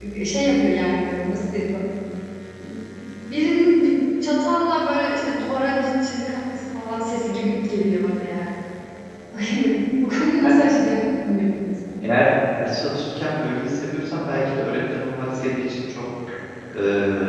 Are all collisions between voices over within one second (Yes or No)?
Yes